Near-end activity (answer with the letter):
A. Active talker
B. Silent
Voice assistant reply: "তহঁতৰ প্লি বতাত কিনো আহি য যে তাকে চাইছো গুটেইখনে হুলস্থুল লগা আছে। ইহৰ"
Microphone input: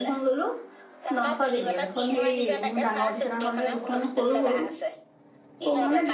A